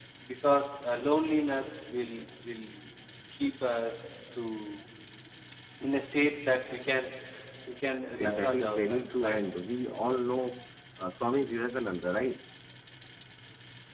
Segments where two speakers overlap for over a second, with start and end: 8.2-9.4

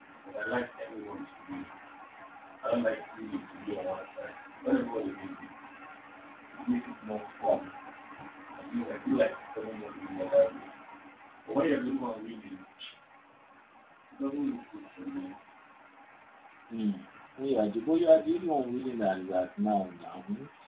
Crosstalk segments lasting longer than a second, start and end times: none

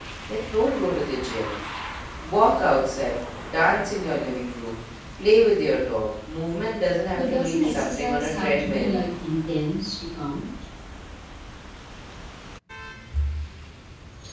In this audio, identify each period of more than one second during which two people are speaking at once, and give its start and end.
7.2-9.0

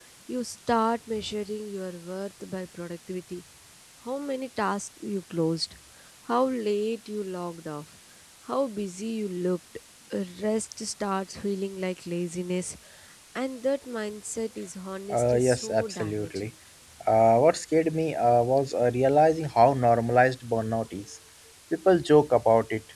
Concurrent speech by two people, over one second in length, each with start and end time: 15.1-16.4

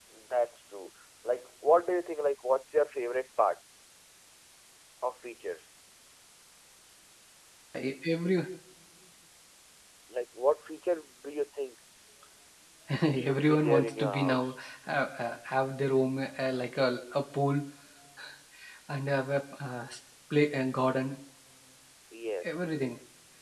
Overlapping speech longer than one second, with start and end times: 13.1-14.6

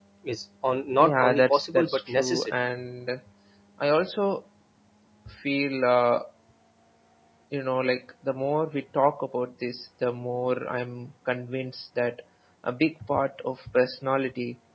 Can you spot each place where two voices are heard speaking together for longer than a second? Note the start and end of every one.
1.0-2.5

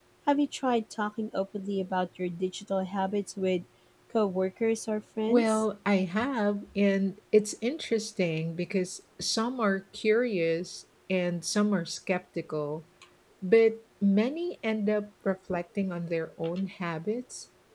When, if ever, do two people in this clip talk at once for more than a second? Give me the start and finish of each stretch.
none

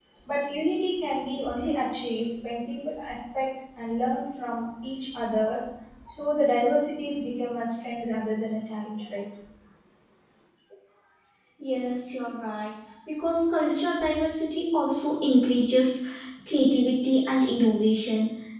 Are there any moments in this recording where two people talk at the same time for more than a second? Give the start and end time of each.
none

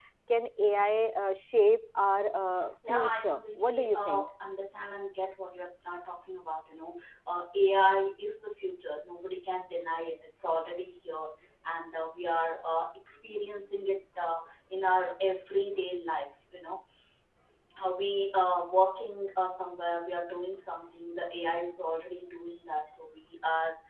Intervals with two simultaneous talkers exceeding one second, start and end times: 2.9-4.3

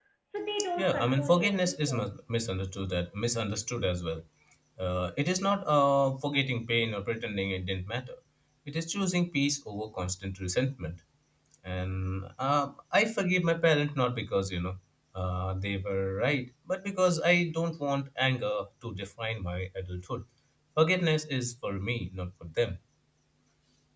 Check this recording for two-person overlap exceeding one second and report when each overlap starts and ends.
0.8-2.0

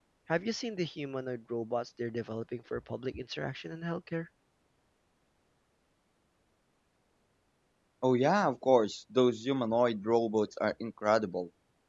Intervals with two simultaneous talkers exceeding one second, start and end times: none

